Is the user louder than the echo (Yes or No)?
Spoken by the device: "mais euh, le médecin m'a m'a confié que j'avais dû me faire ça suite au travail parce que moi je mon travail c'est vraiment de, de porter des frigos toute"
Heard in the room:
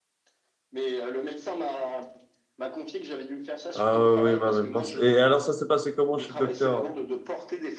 Yes